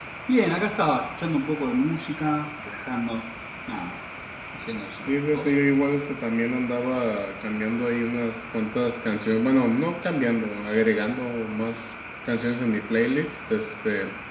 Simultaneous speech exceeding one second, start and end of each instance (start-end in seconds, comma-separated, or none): none